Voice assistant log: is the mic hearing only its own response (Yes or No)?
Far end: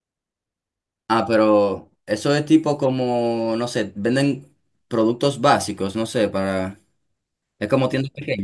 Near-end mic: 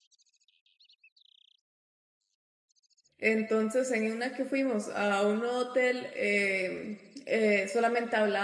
No